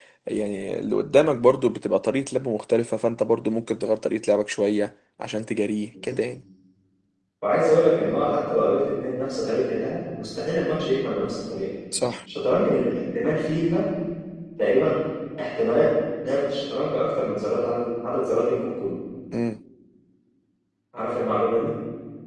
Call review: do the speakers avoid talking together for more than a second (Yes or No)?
Yes